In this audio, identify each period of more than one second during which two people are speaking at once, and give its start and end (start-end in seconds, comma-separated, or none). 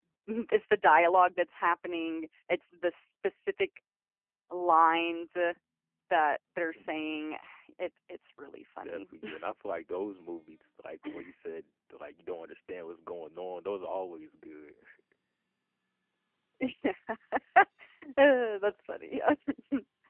none